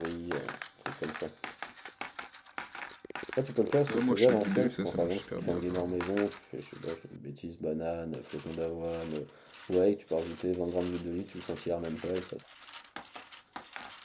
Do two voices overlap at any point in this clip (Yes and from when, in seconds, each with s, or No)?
Yes, from 3.9 s